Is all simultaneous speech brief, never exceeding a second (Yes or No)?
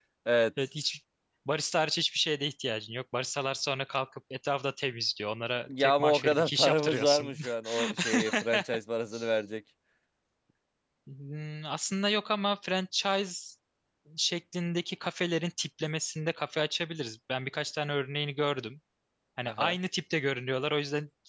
No